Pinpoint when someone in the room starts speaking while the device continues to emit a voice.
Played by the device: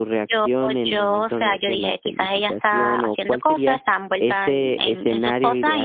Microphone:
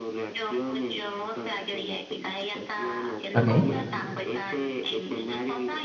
3.3 s

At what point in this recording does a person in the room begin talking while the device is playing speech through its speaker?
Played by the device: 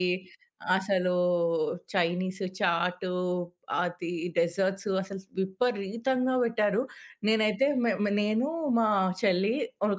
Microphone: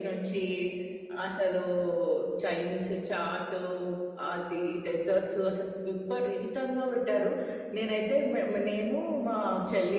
none

